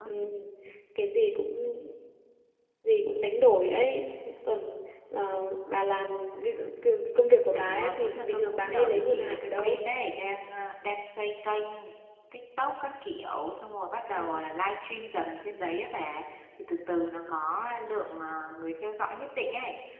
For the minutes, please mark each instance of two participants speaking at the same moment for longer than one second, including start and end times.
7.6-9.8

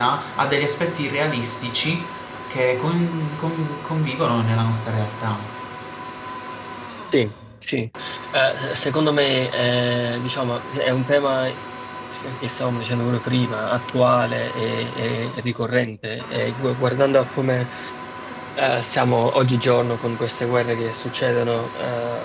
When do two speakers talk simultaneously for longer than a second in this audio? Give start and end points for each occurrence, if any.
none

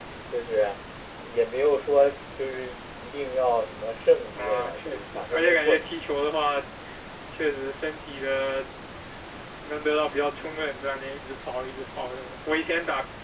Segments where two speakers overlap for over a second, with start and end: 4.4-5.9

